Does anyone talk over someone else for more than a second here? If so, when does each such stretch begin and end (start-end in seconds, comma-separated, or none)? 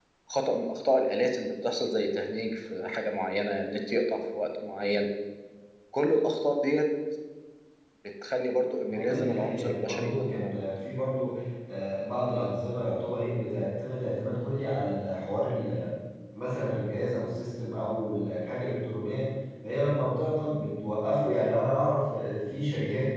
8.9-10.7